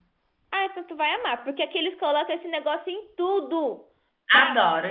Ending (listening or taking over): taking over